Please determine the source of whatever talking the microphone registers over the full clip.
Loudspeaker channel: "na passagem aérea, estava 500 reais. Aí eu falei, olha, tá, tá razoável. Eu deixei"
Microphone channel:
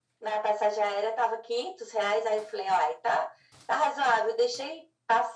echo only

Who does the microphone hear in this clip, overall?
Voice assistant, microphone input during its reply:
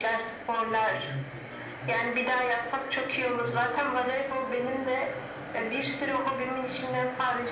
both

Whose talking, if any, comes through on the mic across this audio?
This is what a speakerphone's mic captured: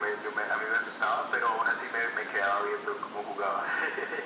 echo only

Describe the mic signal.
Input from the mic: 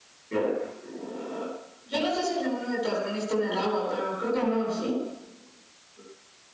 echo only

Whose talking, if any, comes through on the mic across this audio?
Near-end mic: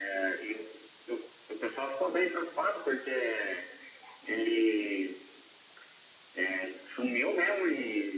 echo only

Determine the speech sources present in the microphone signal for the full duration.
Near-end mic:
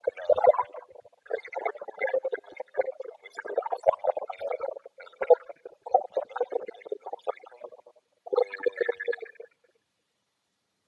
echo only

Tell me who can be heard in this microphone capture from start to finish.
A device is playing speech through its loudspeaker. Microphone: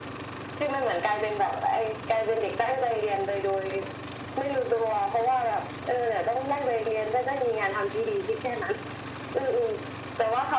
echo only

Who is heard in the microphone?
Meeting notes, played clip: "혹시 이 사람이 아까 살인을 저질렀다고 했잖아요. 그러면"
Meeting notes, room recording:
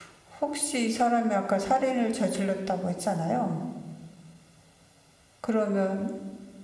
echo only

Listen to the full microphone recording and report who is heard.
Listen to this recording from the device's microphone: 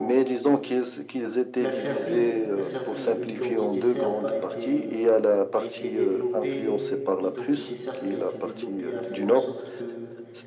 both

